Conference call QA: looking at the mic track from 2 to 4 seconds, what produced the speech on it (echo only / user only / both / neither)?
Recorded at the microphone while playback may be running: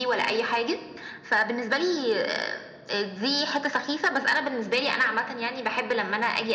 echo only